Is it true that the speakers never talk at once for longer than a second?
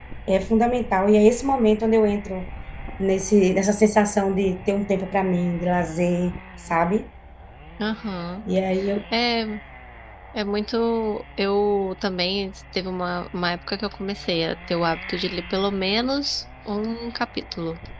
Yes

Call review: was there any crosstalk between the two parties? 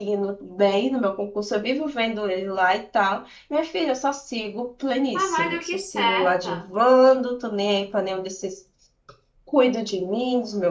Yes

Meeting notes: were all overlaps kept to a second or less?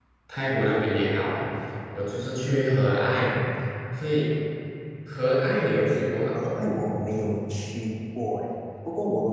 Yes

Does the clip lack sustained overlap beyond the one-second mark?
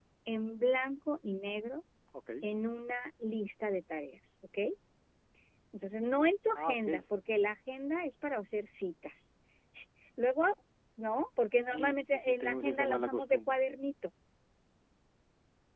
No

